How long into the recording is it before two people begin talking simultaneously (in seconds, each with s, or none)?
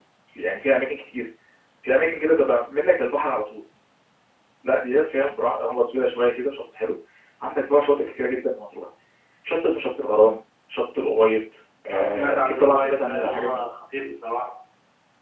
11.9 s